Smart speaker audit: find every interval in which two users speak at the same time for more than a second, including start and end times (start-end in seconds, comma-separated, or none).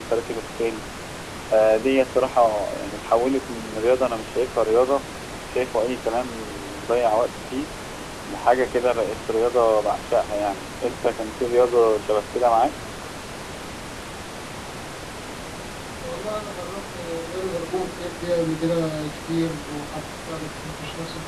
none